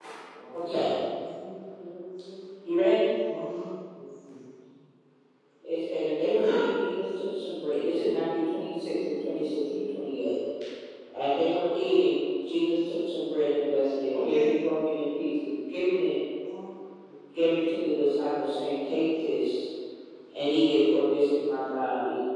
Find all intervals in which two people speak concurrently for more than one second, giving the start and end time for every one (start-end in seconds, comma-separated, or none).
7.9-9.8